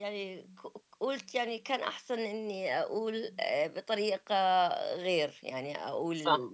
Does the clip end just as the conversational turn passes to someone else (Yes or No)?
Yes